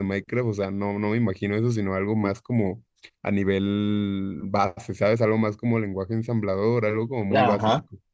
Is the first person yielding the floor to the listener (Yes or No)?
Yes